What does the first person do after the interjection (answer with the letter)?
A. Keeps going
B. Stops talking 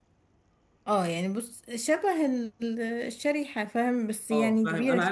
B